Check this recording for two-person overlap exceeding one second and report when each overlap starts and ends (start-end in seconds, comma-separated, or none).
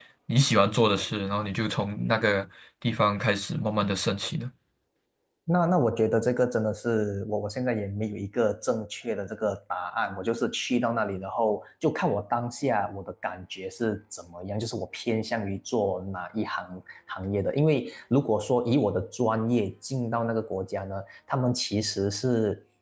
none